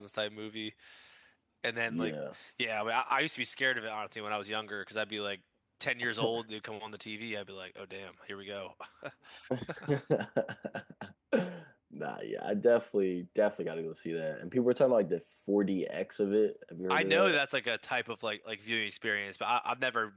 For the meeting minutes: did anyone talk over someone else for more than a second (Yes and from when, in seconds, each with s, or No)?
No